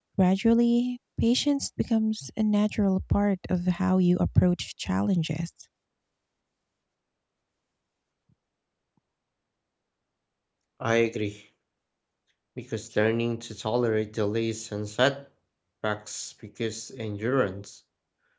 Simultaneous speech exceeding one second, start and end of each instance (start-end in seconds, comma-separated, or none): none